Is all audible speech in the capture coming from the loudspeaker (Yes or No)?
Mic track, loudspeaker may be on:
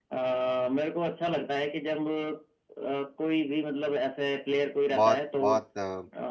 No